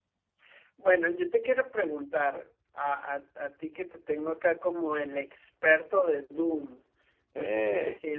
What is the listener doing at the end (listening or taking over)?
listening